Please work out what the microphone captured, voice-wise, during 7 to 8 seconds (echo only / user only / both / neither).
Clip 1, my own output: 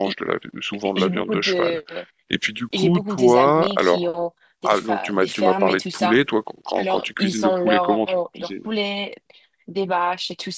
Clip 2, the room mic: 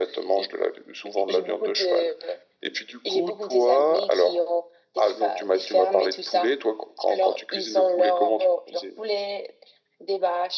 echo only